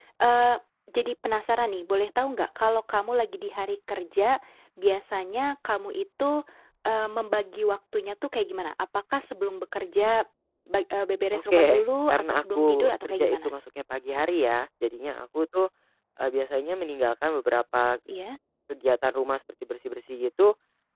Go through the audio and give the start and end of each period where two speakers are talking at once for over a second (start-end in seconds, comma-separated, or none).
12.1-13.5